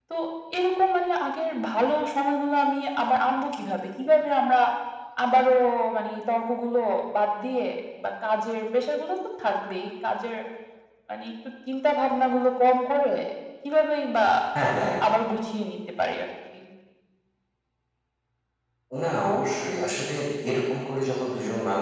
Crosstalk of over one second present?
No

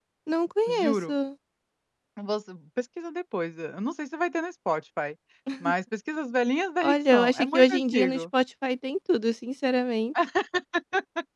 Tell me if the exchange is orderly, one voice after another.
No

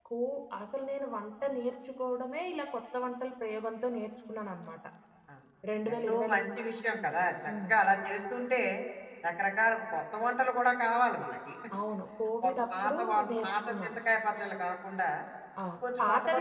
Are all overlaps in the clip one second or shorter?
No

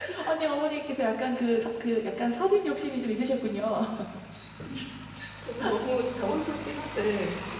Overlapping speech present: No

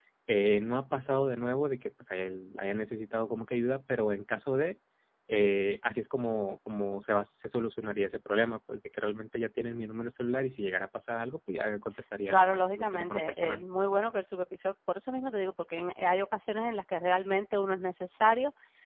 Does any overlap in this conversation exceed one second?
Yes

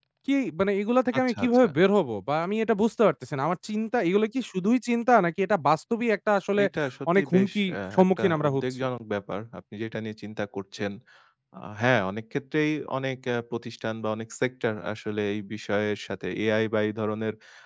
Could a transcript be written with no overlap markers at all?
No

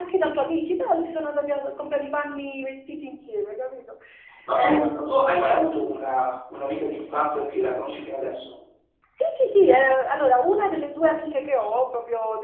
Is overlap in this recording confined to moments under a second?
Yes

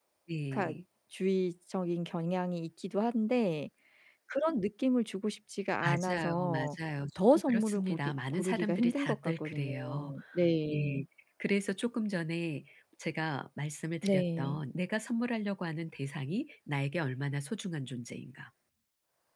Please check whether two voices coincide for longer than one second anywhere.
Yes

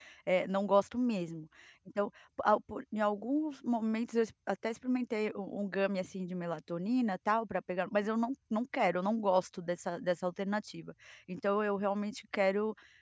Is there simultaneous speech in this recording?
No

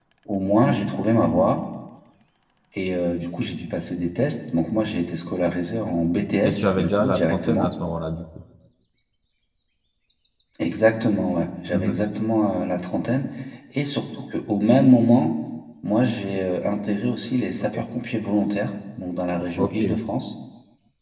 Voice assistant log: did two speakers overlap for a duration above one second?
Yes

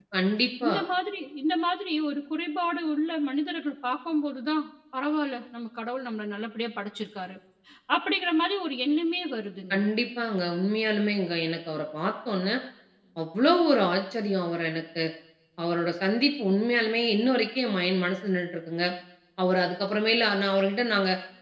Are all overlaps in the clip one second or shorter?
Yes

